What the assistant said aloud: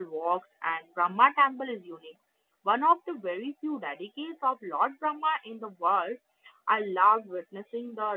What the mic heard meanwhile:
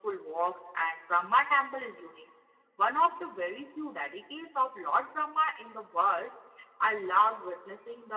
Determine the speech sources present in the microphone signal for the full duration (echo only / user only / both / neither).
echo only